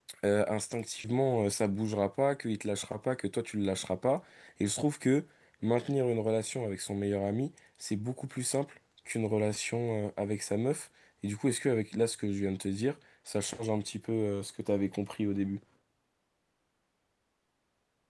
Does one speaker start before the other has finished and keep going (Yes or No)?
No